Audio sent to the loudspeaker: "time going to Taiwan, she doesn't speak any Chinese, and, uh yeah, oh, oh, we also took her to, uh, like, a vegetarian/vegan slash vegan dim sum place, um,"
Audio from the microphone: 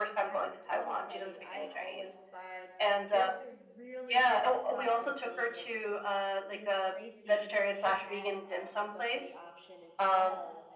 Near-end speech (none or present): present